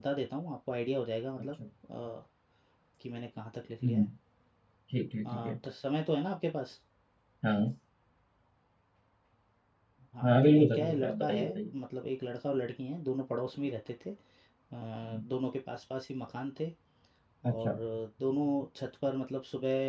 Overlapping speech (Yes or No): Yes